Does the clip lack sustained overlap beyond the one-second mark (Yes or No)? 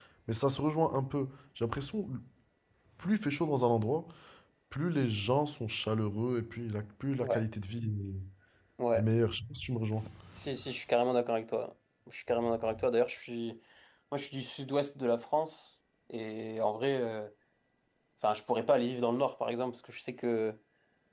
Yes